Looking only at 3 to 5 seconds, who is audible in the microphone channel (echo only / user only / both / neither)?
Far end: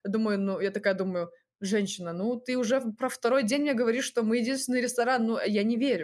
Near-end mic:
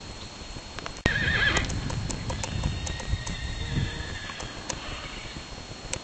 neither